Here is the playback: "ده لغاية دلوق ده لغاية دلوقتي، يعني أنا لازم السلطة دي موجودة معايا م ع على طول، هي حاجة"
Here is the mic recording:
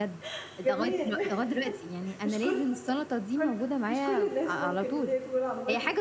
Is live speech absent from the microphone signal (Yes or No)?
No